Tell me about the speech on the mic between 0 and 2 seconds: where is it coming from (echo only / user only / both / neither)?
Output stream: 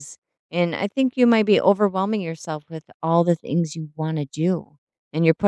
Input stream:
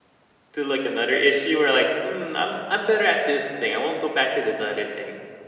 user only